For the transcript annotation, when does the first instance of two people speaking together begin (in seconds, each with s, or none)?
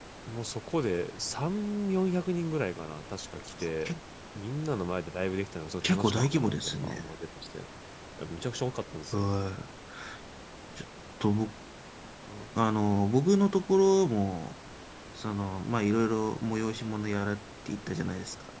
5.8 s